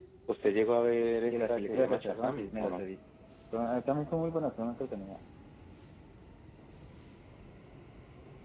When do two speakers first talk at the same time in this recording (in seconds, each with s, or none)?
1.3 s